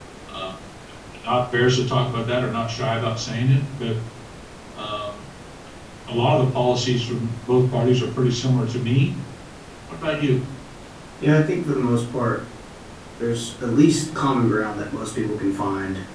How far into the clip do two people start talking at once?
none

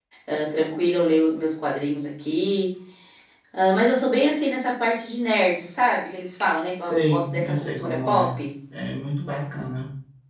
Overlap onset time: 6.8 s

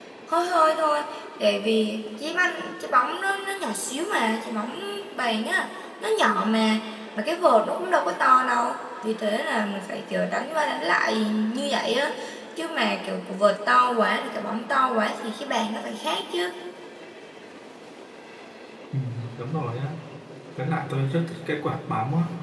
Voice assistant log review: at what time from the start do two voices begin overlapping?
none

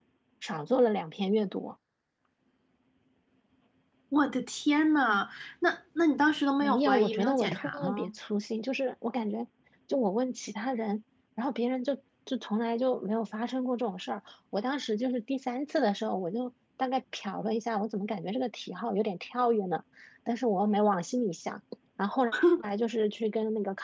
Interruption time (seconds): 6.6 s

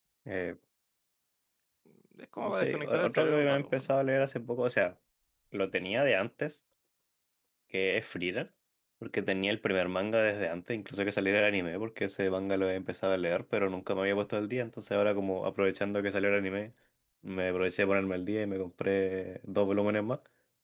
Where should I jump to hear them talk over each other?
2.5 s

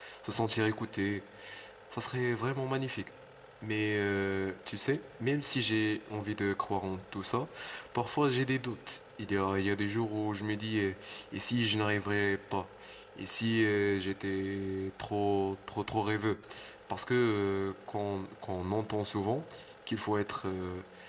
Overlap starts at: none

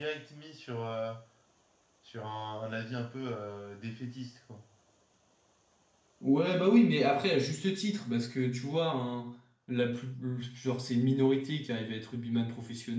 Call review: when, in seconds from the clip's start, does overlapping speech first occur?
none

